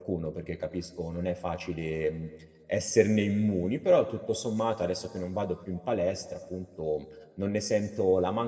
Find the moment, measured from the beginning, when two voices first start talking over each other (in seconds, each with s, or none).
none